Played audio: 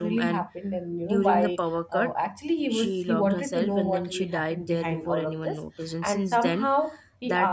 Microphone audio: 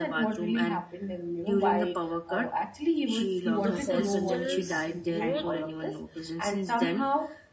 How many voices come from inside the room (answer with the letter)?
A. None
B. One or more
B